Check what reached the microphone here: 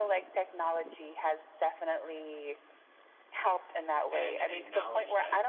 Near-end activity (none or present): present